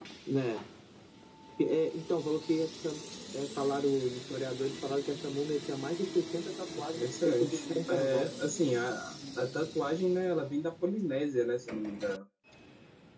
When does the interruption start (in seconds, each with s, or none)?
6.9 s